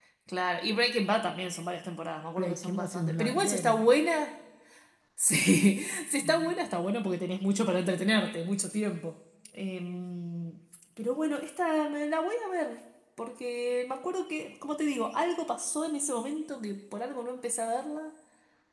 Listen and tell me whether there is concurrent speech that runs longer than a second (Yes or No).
Yes